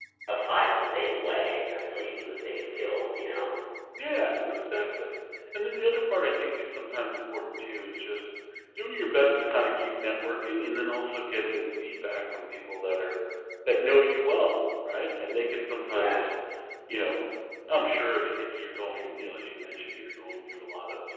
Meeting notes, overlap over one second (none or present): none